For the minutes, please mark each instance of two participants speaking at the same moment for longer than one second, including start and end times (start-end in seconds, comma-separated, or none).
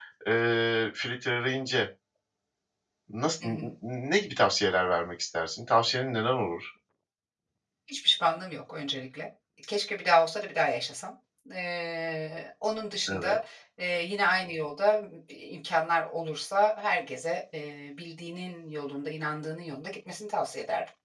none